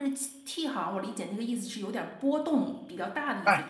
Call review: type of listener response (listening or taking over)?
taking over